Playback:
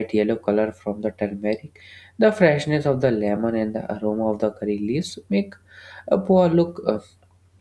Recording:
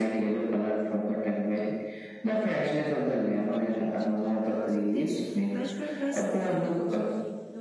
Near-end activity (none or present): present